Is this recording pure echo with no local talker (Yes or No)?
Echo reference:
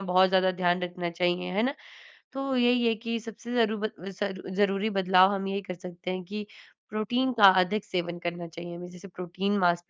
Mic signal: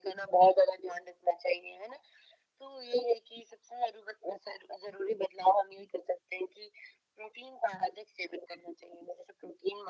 Yes